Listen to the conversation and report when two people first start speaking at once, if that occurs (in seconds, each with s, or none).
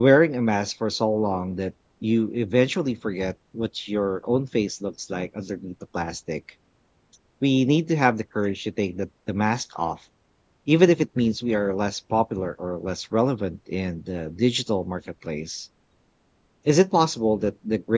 none